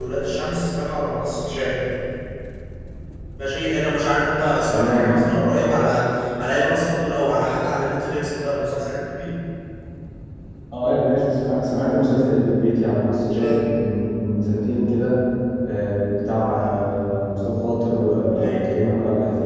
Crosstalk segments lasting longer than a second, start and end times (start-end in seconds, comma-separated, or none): none